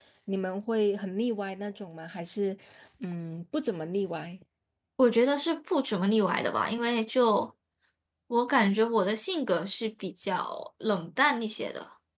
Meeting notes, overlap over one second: none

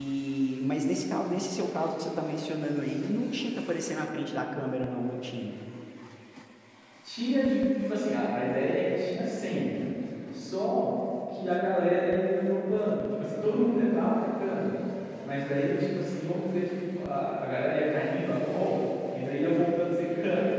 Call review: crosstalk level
none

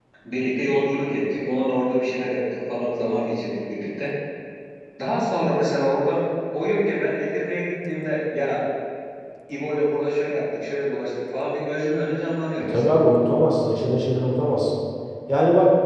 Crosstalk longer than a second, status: none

